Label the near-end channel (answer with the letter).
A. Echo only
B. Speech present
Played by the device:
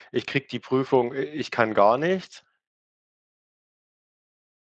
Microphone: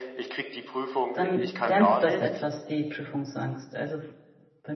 B